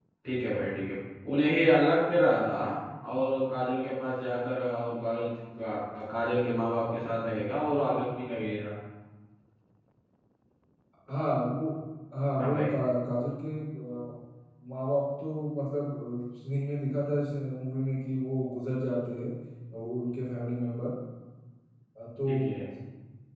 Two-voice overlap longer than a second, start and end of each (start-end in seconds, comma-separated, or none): none